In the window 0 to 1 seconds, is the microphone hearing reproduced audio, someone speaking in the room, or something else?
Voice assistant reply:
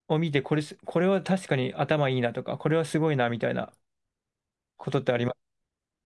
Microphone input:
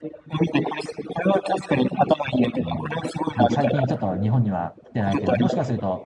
echo only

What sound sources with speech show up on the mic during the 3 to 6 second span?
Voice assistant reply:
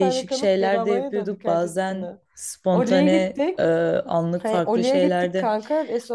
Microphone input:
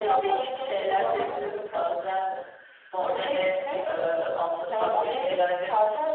echo only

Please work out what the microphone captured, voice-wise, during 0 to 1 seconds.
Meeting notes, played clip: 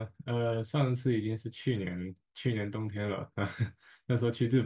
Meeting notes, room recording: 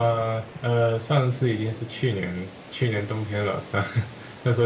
echo only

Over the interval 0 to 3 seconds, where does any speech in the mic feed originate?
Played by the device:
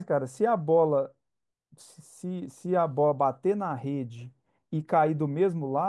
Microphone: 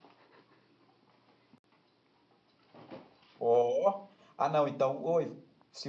neither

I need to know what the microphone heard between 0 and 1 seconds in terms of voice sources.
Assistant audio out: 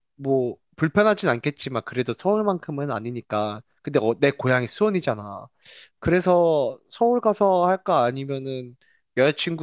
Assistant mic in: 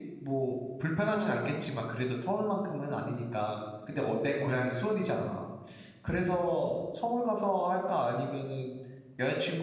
echo only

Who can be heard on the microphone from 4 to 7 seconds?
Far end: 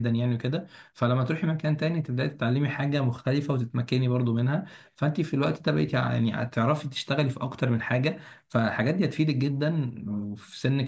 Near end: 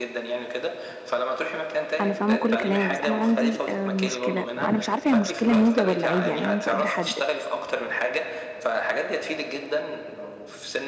both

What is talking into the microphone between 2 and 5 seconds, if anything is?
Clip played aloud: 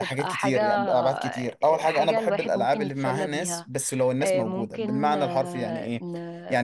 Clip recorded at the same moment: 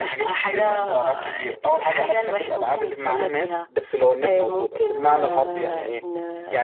echo only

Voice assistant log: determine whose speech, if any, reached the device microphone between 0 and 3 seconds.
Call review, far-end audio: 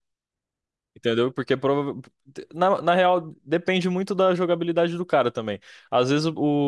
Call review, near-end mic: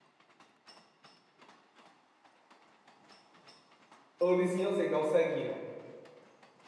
neither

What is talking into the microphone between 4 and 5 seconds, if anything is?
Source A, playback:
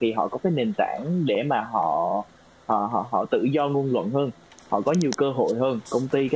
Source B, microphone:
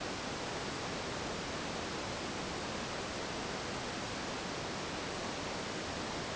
neither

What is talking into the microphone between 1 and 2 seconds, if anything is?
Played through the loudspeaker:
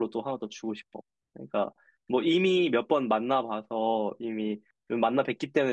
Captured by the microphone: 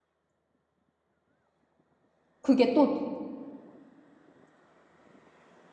neither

